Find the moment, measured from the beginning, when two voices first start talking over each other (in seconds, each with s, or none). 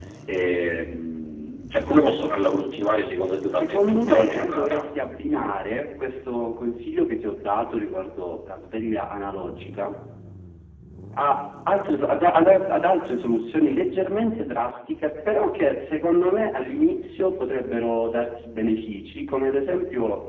3.4 s